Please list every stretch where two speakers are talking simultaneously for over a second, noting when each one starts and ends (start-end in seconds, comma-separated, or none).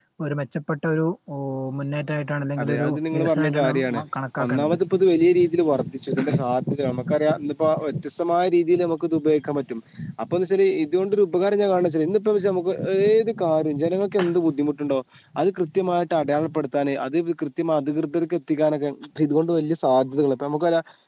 2.6-4.0